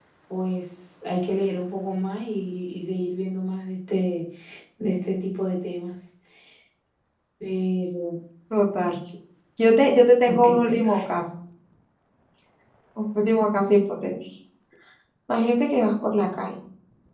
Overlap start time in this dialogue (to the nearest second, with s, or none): 10 s